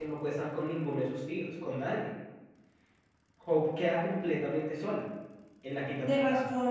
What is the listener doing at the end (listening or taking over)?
taking over